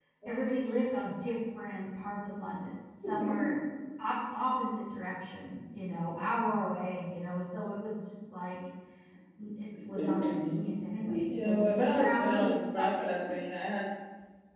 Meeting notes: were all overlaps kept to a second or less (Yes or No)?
No